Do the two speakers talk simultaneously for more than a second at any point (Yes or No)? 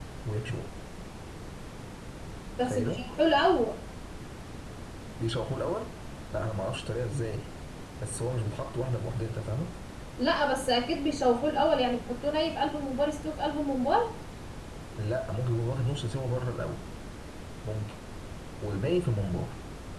No